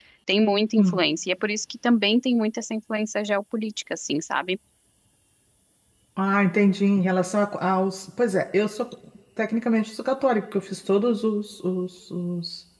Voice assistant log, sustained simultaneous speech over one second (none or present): none